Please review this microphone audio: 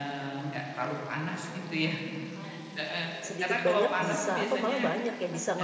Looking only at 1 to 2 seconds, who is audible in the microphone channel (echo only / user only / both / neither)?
echo only